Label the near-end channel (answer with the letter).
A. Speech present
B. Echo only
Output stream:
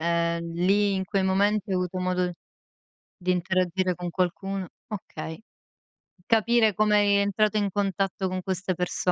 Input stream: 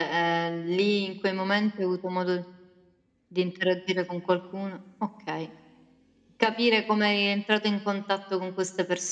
B